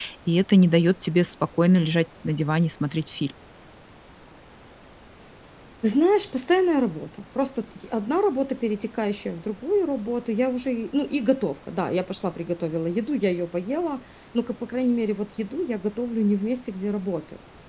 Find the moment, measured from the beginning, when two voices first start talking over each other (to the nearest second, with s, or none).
none